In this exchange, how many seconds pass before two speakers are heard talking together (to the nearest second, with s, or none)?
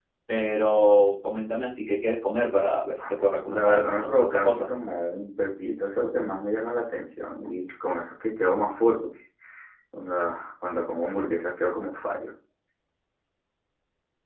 3 s